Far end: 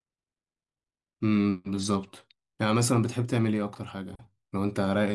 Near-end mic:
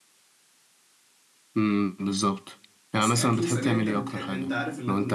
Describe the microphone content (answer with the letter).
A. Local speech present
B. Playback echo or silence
A